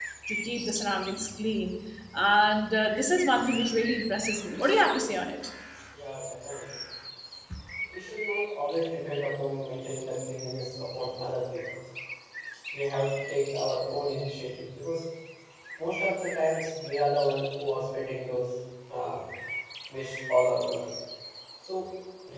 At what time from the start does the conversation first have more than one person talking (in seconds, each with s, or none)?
none